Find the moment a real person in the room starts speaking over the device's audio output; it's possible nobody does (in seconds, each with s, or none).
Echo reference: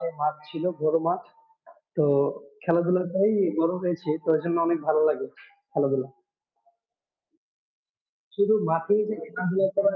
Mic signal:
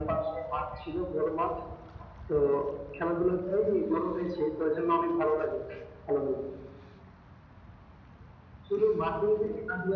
none